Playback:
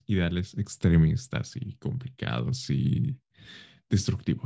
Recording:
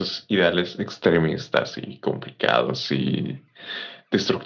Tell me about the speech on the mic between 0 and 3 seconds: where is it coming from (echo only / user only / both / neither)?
echo only